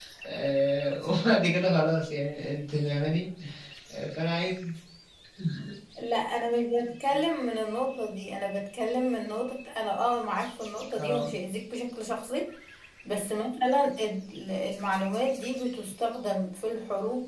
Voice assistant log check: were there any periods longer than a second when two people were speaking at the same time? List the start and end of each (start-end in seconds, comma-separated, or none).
none